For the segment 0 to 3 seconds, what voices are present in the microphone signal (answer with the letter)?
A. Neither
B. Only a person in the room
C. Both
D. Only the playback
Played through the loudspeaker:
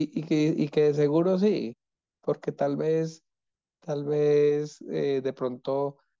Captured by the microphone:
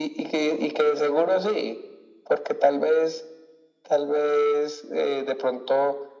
D